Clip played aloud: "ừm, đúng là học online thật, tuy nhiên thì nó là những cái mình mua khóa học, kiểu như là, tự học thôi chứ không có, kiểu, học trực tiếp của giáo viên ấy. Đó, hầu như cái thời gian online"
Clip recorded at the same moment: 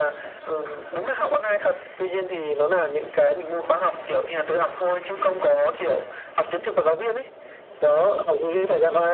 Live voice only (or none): Ừ, mình hiểu.